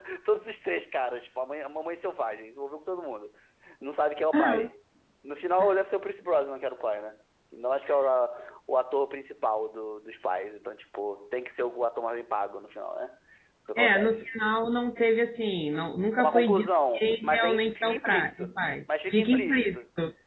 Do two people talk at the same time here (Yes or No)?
Yes